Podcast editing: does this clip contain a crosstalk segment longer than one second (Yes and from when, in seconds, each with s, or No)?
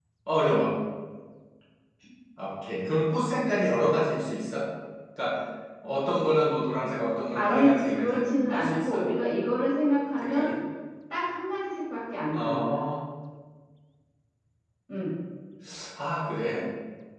Yes, from 7.3 s